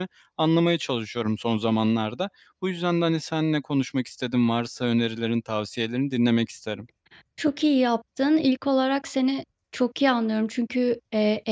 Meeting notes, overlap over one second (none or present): none